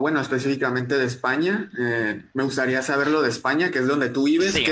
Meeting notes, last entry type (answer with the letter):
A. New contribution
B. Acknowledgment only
B